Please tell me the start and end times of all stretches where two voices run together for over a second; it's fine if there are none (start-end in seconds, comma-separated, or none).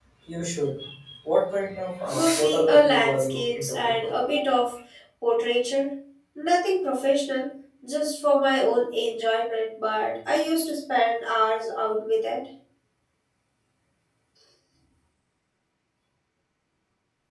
2.1-4.1